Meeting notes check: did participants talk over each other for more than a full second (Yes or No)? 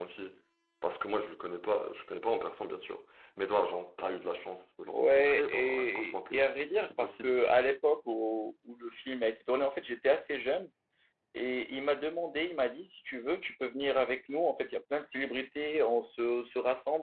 Yes